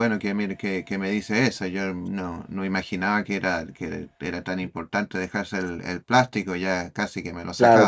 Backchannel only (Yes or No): No